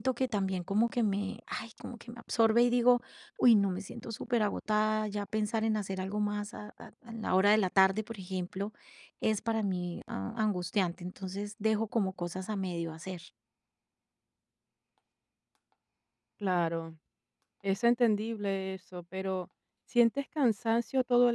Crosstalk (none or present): none